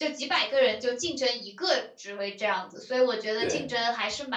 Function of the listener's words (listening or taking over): listening